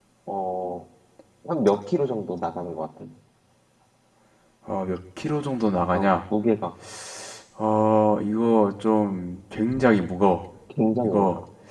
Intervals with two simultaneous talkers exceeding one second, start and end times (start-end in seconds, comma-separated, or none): none